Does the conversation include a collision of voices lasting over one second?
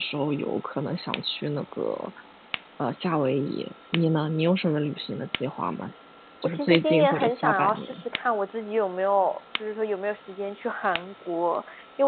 Yes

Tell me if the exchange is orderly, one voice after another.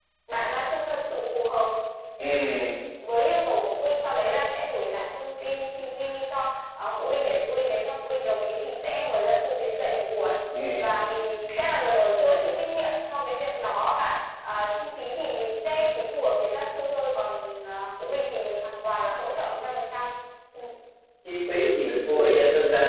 Yes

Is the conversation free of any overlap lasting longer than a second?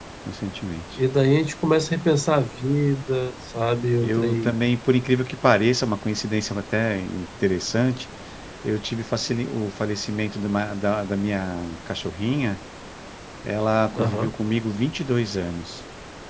Yes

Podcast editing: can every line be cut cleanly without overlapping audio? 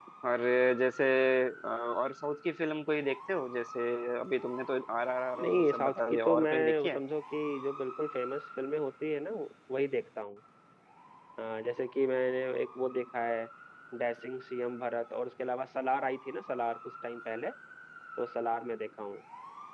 No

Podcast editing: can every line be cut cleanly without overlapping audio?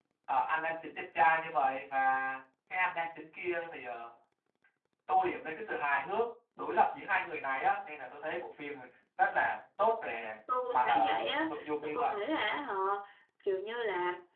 No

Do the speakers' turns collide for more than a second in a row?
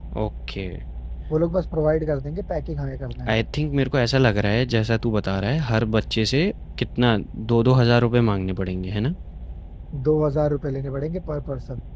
No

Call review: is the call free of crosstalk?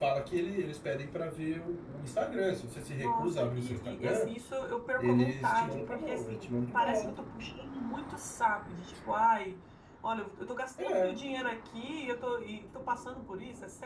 No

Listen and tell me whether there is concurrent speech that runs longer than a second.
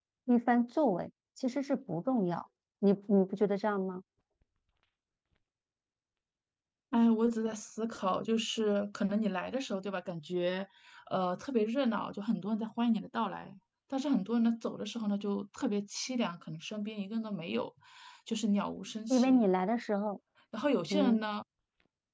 No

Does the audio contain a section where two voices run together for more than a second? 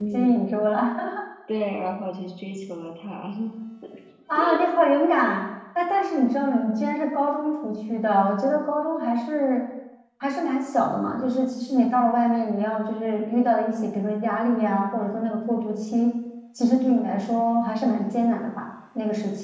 No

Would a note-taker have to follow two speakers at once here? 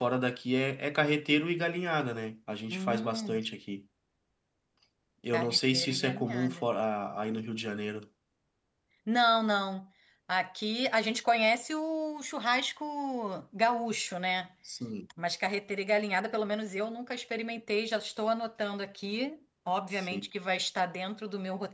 Yes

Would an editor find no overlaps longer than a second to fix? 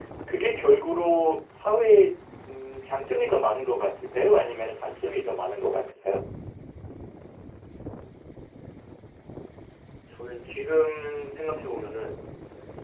Yes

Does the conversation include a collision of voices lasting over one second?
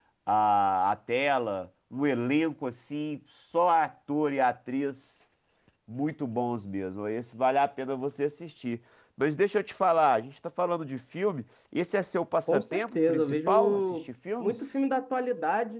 Yes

